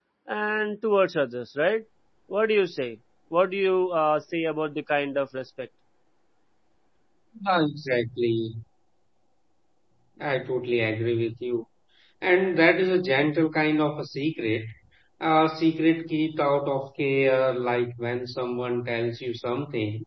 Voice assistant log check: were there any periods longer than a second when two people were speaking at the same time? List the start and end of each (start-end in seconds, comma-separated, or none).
none